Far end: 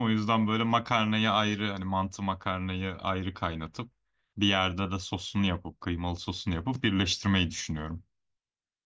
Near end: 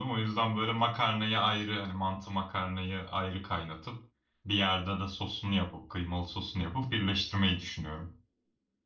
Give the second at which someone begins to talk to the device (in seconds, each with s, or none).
none